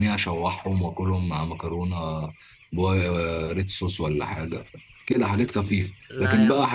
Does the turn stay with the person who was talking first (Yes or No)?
Yes